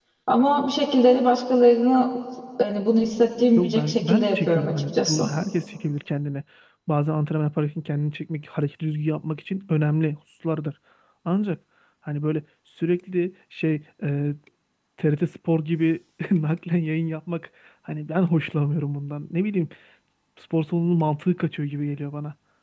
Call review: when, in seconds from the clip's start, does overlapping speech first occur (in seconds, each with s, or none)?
3.6 s